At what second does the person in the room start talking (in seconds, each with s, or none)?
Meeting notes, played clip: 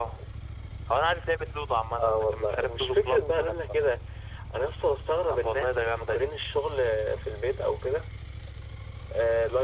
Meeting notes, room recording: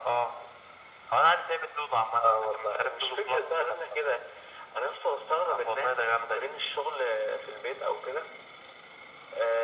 none